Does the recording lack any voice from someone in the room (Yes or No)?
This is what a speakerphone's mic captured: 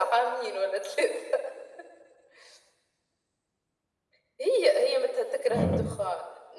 No